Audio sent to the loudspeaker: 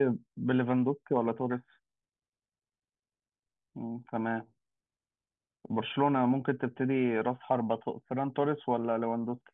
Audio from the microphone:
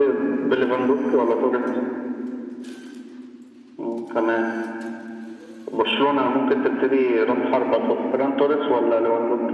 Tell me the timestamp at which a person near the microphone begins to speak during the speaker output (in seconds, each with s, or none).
none